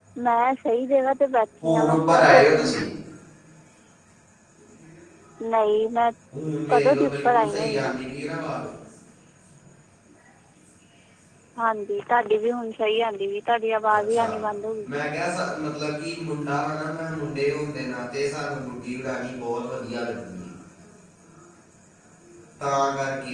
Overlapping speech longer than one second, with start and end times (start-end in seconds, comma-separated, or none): 1.6-2.8, 6.7-8.0